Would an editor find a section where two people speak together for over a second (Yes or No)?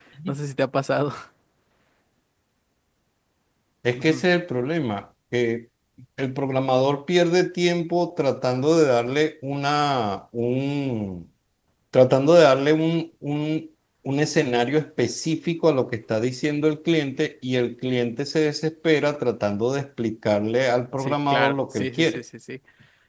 Yes